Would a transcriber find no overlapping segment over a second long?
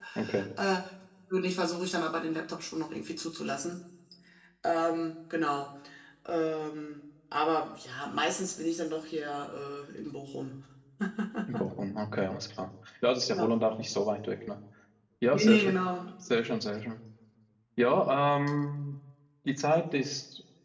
Yes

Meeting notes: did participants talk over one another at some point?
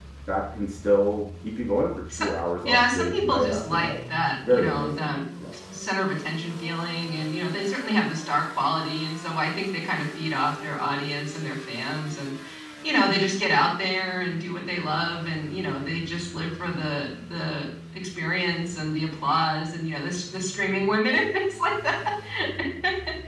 Yes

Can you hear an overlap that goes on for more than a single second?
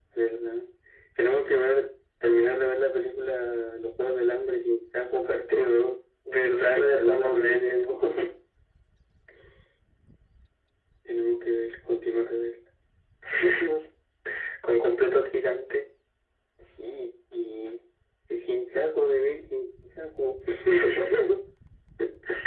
Yes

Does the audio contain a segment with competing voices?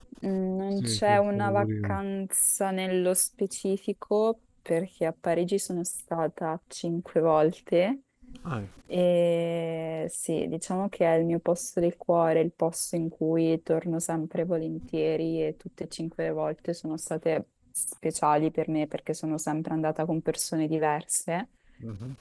Yes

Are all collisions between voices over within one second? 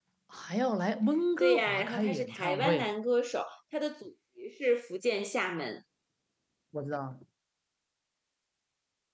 No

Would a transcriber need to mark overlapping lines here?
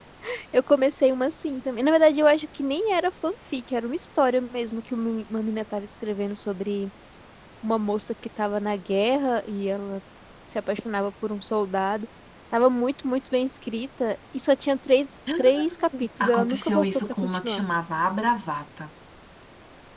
Yes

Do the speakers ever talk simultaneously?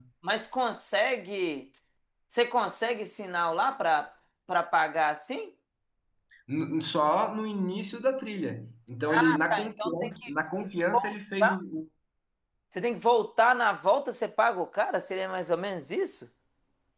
Yes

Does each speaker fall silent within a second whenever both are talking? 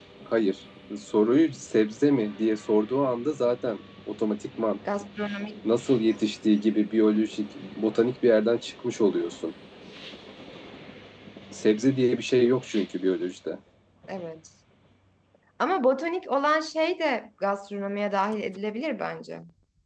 Yes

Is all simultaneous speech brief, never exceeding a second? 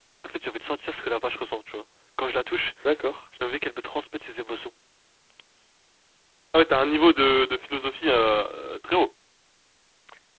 Yes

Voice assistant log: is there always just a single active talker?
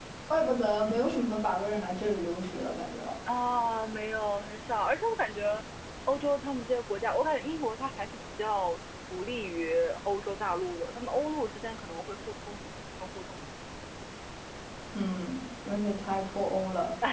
Yes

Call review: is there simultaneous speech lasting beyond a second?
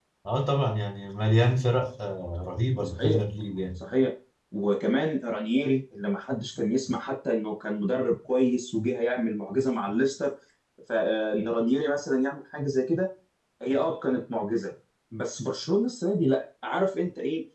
No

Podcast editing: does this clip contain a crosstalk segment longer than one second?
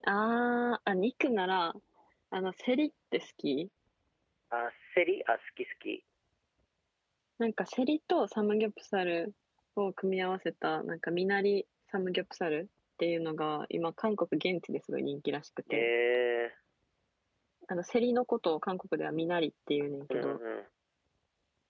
No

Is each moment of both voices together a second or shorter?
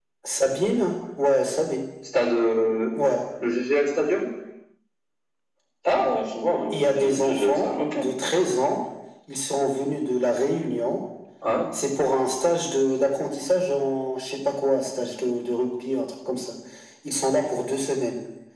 No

